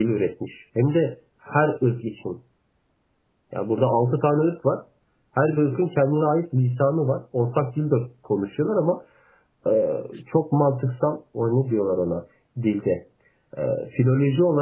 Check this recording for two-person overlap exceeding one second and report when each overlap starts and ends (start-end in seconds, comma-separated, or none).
none